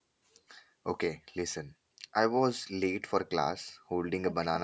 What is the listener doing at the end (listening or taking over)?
listening